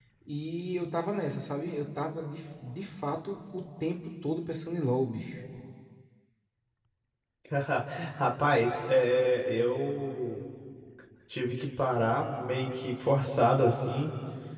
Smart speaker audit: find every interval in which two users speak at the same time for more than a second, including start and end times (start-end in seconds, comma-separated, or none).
none